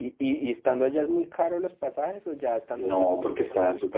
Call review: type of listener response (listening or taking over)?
taking over